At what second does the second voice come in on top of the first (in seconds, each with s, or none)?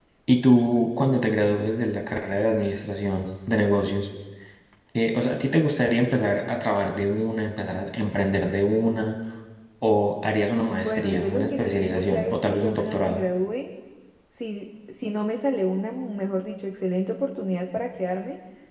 10.7 s